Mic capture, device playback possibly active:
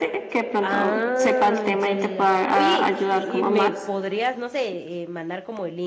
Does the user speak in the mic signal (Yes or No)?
Yes